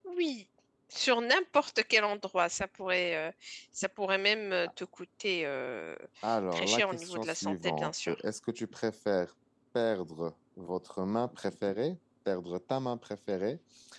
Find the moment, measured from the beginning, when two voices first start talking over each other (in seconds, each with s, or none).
6.5 s